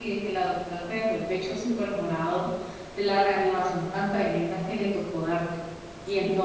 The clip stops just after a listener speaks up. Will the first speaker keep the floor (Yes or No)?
No